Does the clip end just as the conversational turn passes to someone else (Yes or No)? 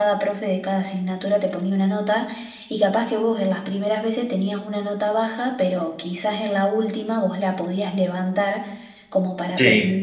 No